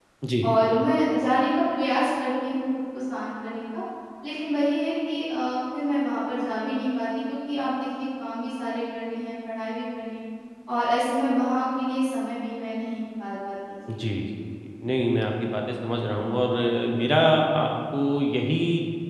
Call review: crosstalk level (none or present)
none